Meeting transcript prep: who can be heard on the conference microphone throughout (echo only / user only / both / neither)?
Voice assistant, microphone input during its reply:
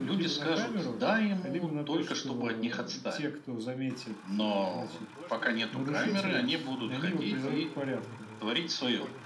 both